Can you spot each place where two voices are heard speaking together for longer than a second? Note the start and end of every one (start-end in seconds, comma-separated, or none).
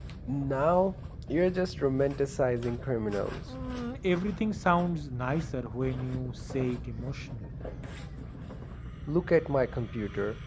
none